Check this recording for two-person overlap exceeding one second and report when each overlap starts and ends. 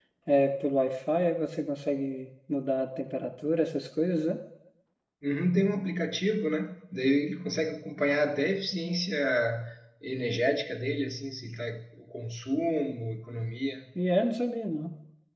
none

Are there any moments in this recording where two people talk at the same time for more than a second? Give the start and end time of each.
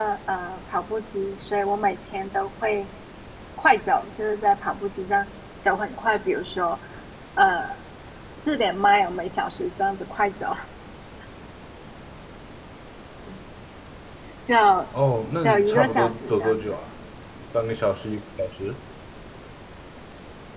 15.4-16.8

